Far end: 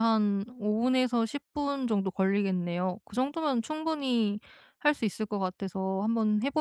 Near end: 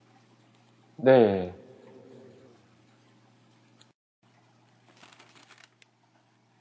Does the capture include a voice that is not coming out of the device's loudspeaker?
Yes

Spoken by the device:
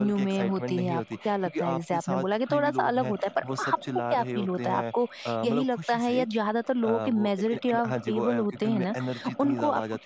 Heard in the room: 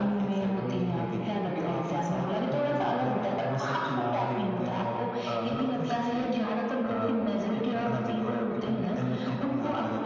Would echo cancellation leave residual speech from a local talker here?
No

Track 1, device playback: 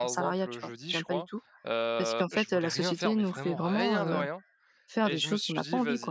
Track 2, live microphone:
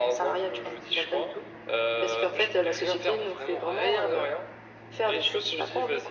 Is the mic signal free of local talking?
Yes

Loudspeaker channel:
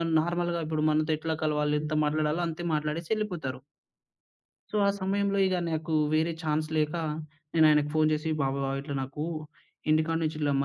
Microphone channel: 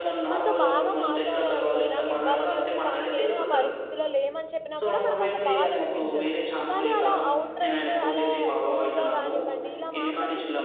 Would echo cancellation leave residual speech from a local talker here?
Yes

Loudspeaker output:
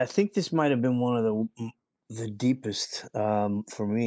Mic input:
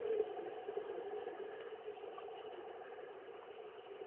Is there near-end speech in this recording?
No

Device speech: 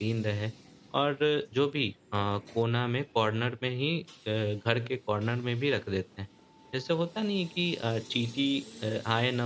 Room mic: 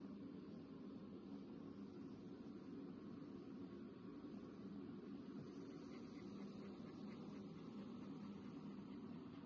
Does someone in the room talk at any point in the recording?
No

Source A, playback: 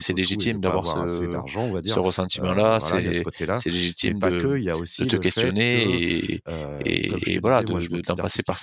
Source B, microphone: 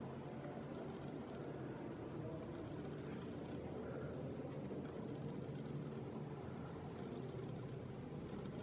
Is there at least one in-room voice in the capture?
No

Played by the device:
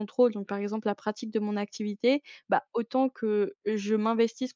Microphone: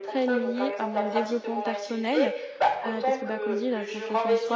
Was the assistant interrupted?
Yes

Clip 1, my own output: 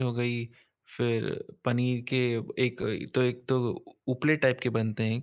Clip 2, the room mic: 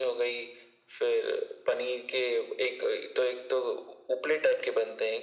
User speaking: No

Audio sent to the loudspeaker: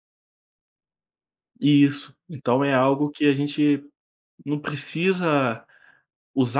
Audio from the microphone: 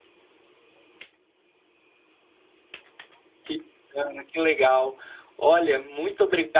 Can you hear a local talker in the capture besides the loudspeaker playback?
Yes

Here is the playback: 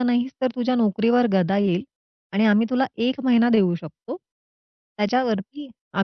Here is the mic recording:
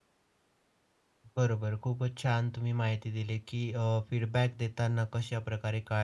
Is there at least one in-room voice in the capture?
Yes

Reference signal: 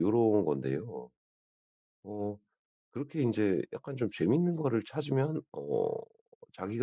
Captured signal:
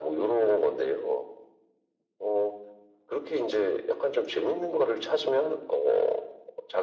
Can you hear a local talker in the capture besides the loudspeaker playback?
No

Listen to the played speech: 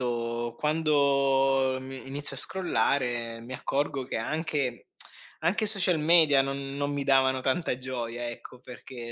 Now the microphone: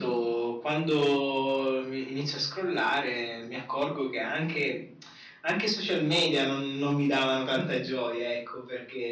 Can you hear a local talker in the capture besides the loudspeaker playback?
No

